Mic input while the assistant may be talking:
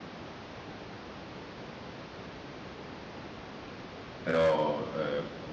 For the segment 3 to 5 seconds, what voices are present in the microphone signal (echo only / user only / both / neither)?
user only